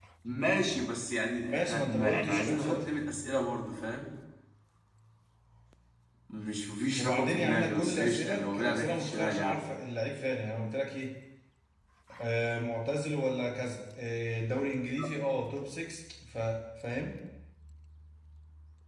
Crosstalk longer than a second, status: present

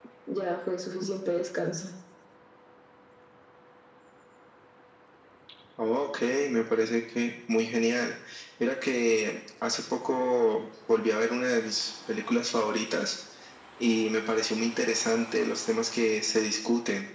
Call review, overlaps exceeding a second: none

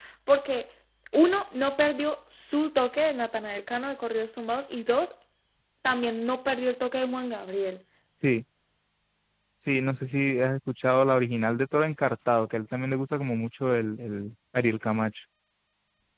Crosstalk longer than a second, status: none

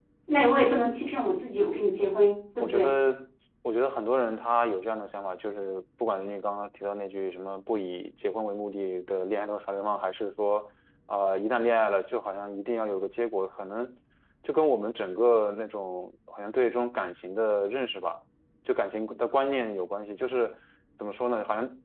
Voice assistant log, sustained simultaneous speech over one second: none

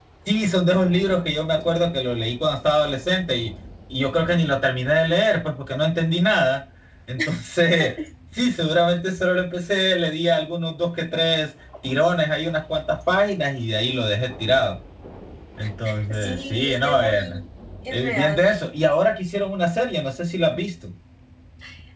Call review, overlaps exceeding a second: present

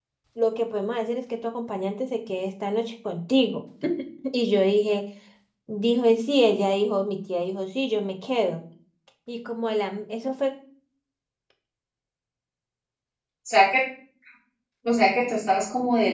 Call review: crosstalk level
none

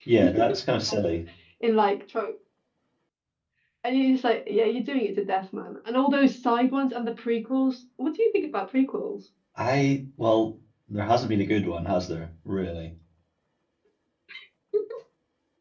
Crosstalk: none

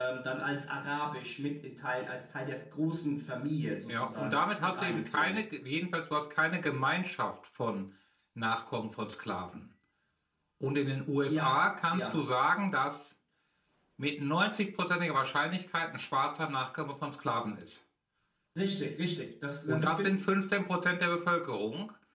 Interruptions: present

